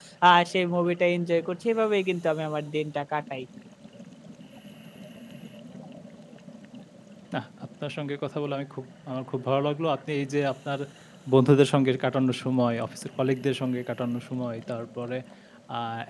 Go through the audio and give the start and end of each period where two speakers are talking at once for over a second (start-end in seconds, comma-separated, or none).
none